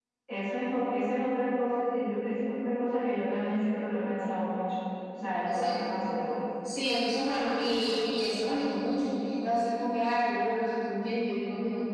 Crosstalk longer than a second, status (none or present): none